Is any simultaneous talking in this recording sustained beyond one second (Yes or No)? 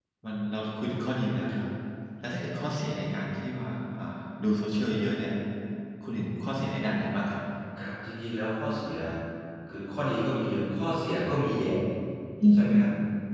No